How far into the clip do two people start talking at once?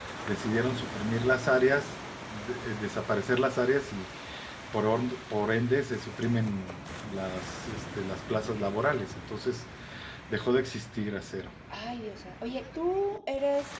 none

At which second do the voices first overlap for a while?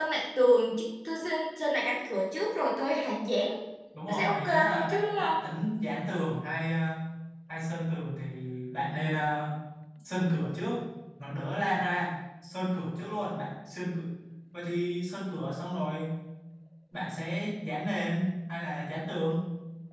4.1 s

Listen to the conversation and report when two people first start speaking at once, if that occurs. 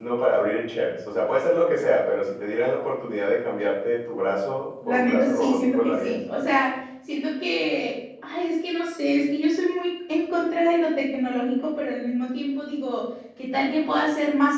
4.8 s

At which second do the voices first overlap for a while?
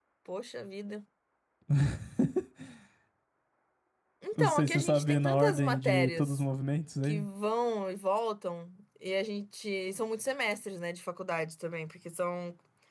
4.4 s

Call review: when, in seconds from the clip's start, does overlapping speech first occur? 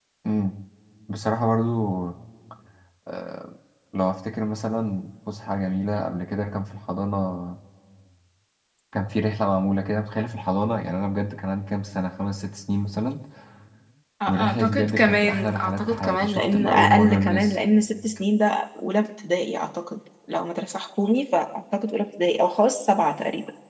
14.3 s

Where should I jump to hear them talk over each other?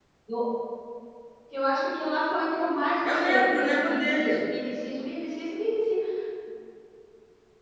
3.0 s

